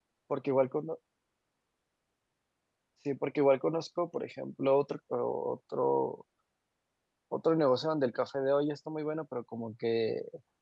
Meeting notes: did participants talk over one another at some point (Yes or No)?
No